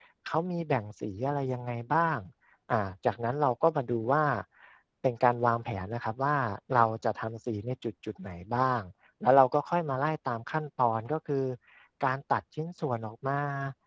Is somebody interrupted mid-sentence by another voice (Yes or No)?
No